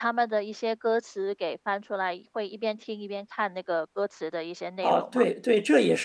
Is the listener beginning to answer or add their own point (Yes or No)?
Yes